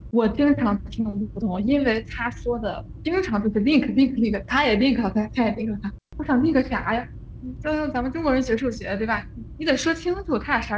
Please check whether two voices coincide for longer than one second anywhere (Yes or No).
No